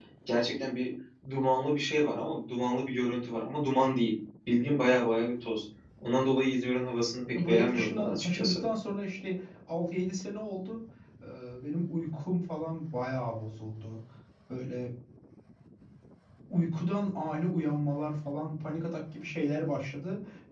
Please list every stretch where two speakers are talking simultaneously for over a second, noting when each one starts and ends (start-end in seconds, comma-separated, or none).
7.4-8.6